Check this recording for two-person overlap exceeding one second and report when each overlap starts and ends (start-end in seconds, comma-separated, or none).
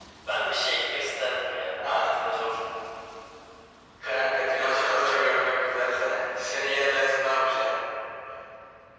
4.0-5.4